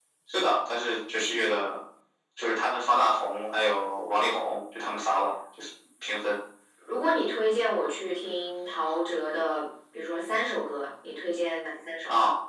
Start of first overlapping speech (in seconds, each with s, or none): none